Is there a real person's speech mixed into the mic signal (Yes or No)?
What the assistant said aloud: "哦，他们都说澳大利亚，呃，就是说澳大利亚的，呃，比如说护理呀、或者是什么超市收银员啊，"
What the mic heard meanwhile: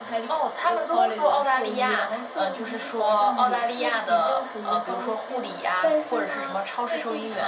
Yes